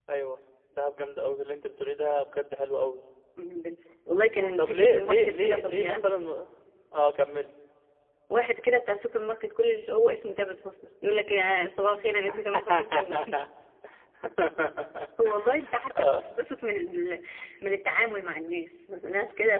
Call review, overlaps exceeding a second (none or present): present